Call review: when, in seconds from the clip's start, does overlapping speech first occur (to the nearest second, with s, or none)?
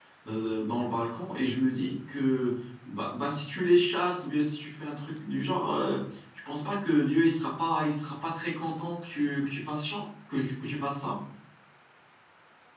none